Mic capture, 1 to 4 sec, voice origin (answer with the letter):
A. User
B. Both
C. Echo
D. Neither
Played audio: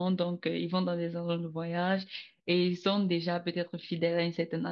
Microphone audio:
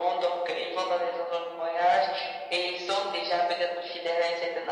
C